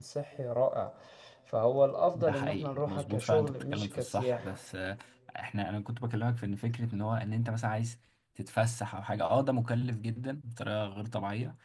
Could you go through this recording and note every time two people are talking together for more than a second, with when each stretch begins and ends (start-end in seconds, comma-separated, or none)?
2.1-4.6